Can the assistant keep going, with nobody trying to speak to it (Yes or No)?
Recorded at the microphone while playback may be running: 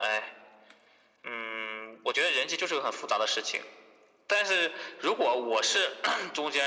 Yes